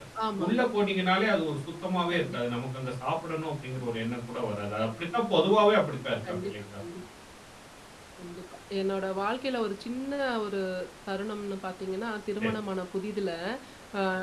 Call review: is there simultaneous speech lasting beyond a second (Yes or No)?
No